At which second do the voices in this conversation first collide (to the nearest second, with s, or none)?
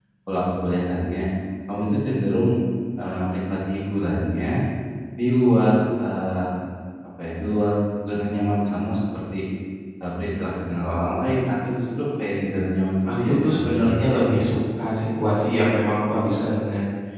13 s